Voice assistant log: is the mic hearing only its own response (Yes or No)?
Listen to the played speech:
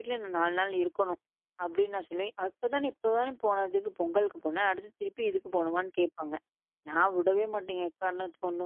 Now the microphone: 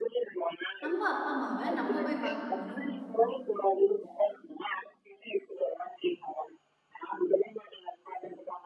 No